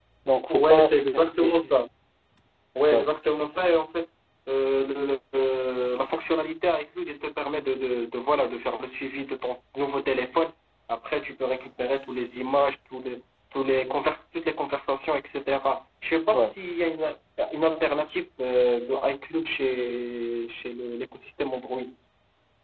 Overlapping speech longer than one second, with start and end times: 0.5-1.8

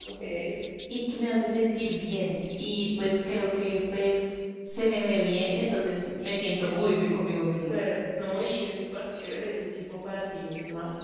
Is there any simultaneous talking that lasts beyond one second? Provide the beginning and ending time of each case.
none

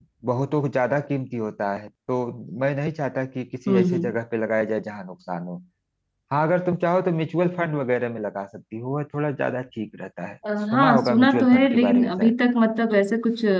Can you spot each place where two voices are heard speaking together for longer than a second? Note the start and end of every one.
10.7-12.3

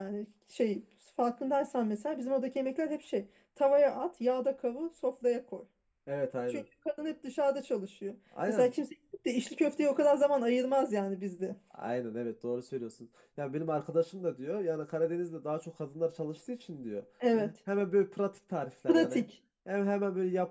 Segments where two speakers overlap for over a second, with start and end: none

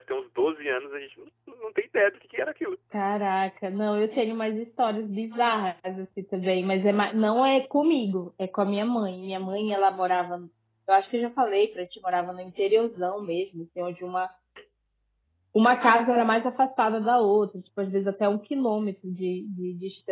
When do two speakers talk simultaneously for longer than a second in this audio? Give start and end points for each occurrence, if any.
none

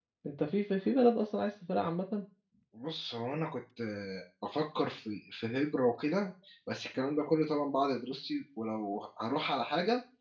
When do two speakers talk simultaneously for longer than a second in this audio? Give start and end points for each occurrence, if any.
none

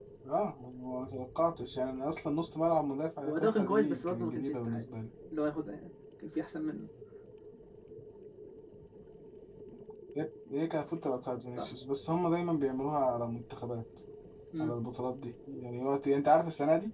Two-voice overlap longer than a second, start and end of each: 3.2-4.8

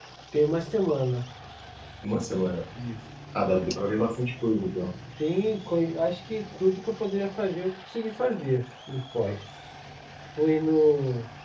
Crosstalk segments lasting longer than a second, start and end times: none

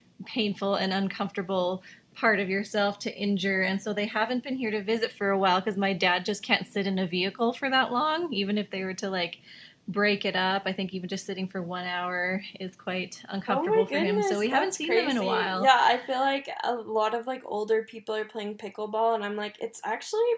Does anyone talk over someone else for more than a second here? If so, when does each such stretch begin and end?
13.5-15.7

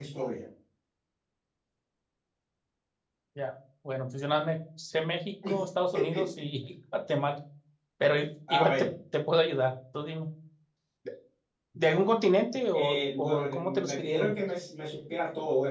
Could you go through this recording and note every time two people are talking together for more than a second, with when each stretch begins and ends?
12.7-14.3

